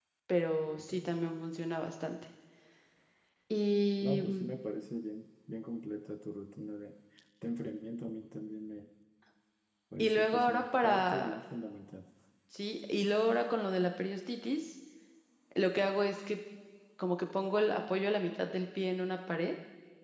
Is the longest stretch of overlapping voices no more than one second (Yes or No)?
No